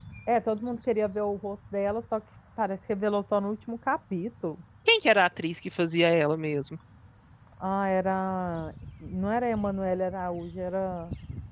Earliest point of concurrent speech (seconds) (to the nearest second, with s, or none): none